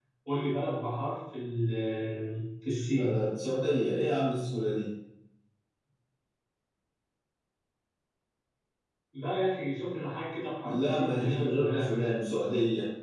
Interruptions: present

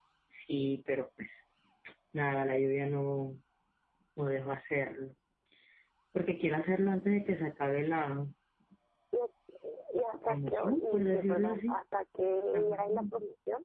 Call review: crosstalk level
present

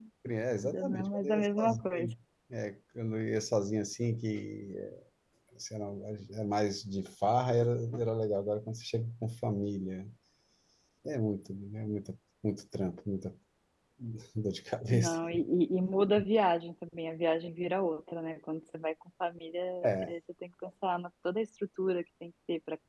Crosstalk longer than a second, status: present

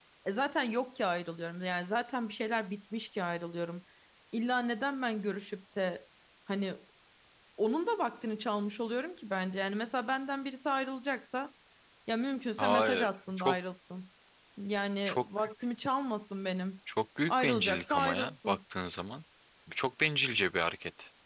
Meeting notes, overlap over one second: present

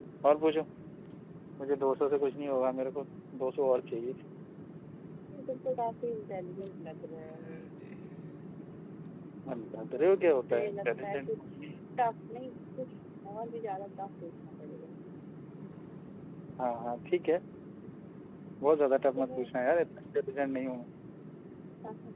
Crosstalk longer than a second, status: present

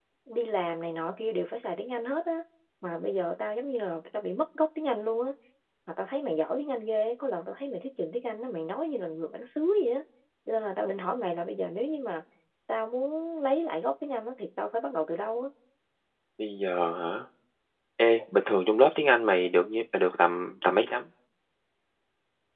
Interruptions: none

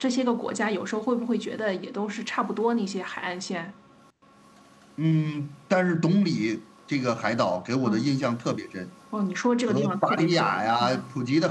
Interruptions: present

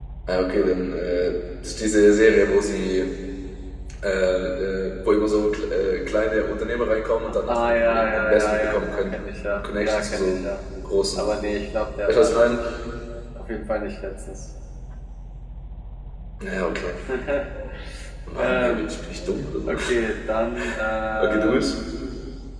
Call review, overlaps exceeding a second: present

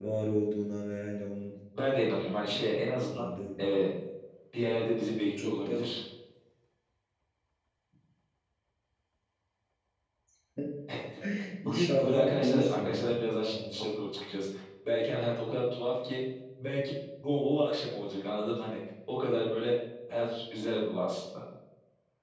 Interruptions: present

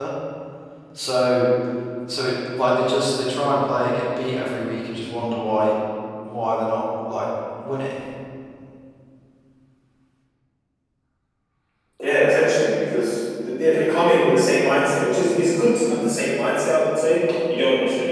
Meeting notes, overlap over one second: none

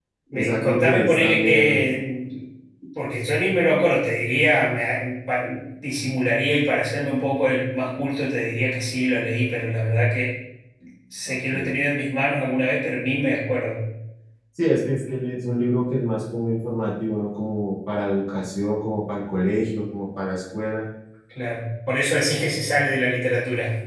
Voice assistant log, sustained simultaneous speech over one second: present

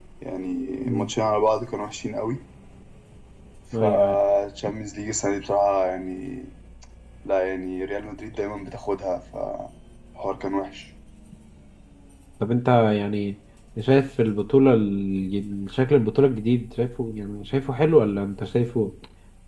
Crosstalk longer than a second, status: none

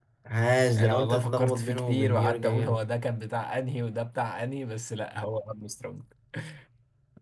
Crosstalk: present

